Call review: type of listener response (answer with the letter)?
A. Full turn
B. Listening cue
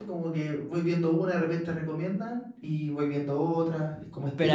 A